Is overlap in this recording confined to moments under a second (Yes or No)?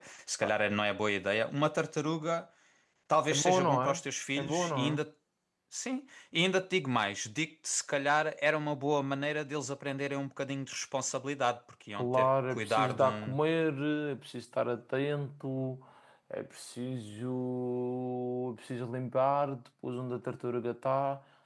No